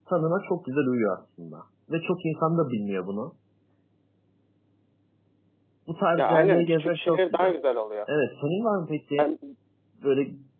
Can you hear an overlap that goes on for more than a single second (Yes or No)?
Yes